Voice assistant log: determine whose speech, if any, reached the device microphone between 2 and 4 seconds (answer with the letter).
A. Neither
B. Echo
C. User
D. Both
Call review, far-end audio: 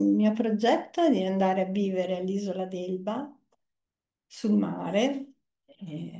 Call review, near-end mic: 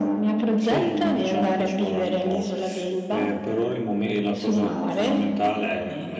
D